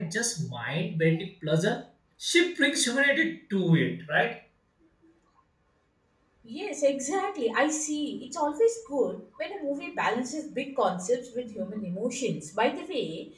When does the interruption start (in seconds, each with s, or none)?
none